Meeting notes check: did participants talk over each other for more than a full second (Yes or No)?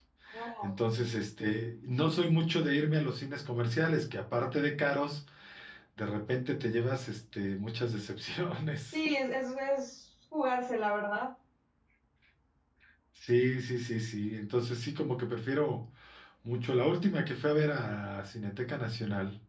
No